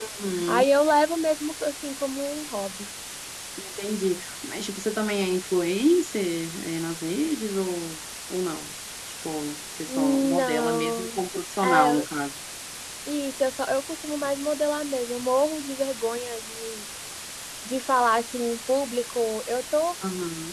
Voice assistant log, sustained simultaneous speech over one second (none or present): present